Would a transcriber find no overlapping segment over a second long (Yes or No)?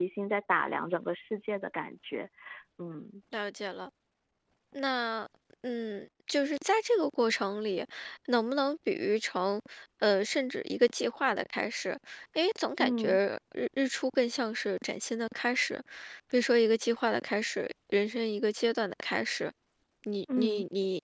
Yes